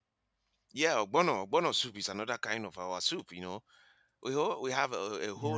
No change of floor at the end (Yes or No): Yes